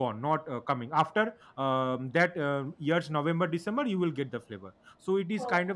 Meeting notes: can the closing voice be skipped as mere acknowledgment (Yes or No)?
Yes